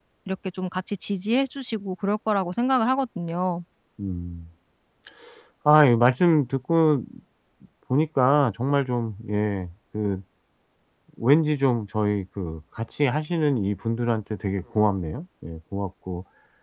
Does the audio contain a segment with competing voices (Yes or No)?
No